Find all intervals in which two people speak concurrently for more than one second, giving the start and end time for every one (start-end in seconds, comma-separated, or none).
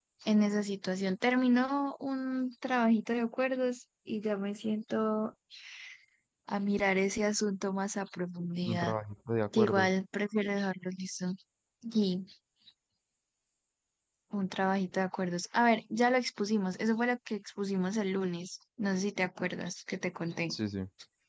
none